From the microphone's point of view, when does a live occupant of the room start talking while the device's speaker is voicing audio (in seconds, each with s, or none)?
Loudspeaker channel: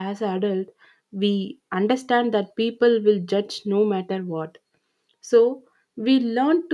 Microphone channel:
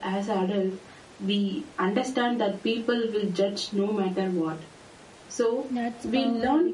5.7 s